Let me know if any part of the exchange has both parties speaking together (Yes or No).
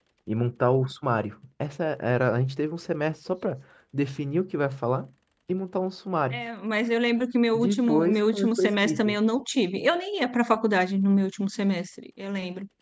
Yes